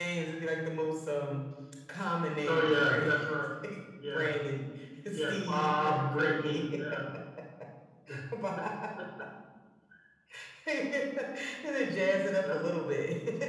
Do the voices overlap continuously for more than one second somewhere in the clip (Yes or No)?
Yes